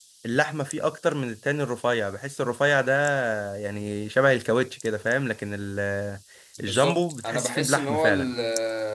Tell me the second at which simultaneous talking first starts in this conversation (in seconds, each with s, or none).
6.6 s